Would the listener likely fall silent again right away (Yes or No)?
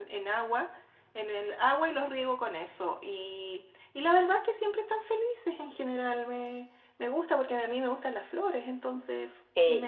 No